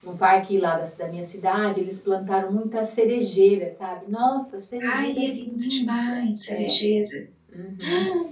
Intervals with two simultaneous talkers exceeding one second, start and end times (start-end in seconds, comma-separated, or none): 4.8-6.7